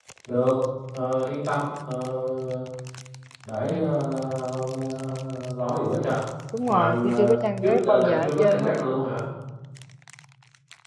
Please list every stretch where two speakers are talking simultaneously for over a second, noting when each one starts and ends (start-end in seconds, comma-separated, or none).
6.7-8.7